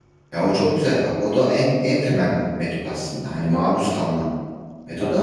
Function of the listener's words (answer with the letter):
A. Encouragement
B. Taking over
A